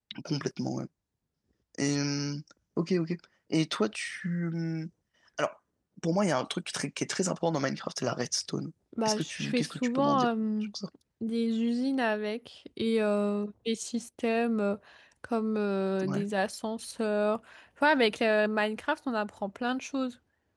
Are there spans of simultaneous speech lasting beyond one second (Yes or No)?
Yes